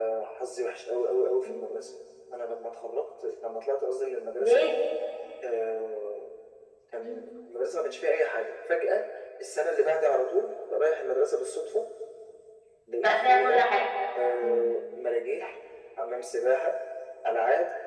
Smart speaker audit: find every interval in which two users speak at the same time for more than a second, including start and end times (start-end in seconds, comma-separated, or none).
none